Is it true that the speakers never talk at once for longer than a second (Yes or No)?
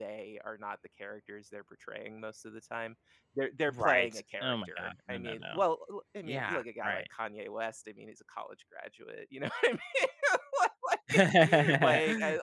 No